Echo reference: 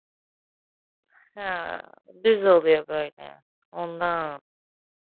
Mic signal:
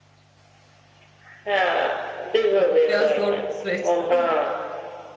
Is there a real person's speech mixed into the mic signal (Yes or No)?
Yes